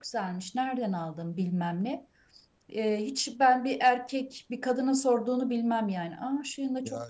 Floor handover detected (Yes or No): Yes